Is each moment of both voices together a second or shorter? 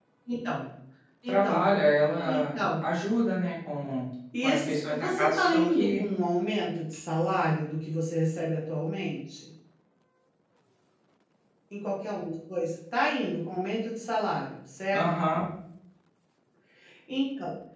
No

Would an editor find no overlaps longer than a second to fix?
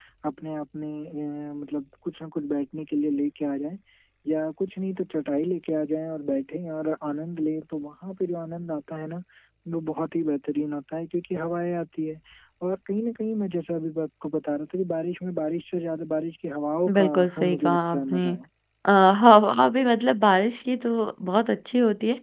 No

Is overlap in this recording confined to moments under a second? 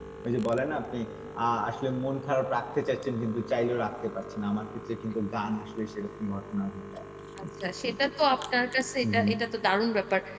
Yes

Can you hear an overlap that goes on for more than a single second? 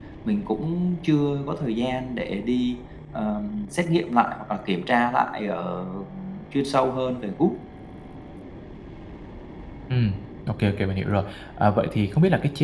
No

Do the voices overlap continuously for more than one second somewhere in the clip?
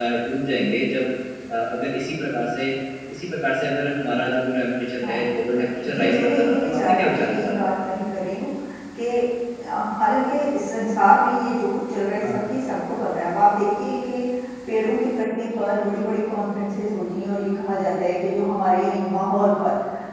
Yes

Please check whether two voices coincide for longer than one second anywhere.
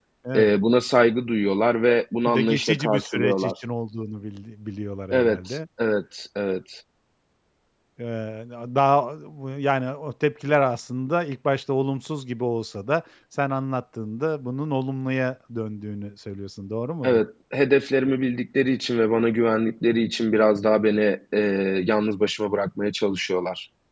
Yes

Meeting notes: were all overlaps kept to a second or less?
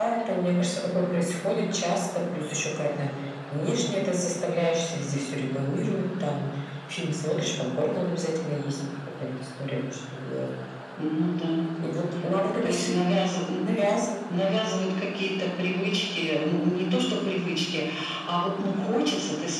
Yes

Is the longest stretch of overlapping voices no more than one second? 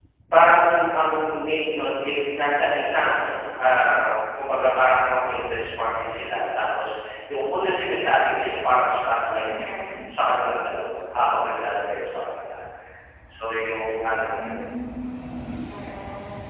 Yes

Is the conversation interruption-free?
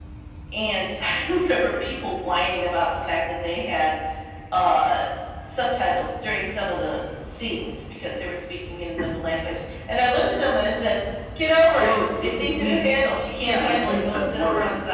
No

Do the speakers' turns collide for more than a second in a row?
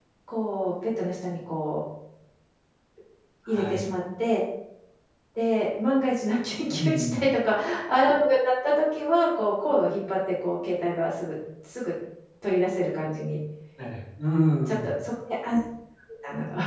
No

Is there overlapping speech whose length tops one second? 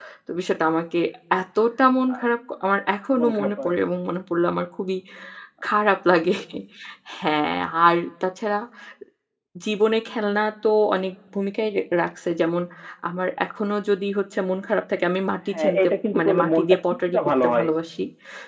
Yes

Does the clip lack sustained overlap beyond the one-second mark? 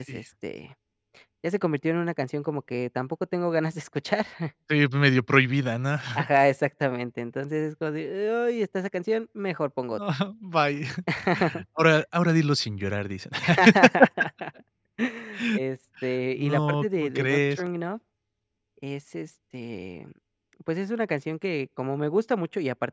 No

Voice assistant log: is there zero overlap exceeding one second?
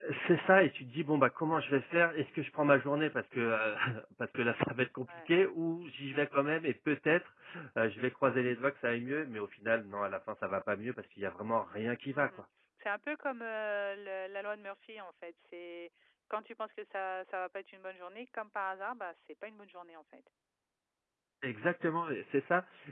Yes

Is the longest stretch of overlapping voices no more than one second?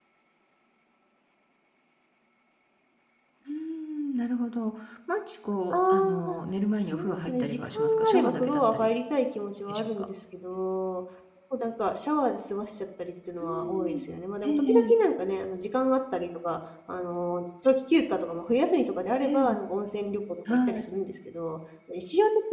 No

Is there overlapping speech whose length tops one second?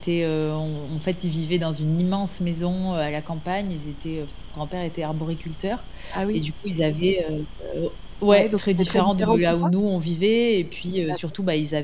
Yes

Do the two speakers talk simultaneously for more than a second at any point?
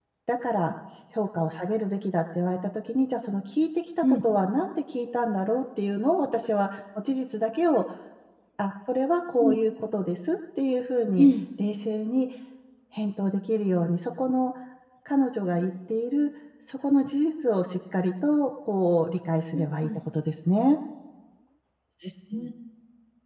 No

